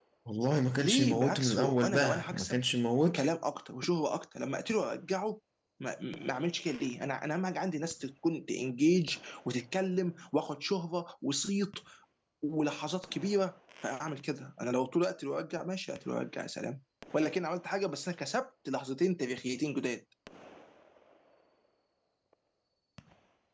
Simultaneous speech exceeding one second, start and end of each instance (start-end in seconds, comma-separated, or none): 0.8-2.6